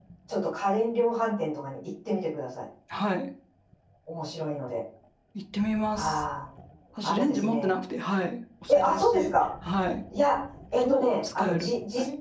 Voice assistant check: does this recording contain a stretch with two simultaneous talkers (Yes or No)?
Yes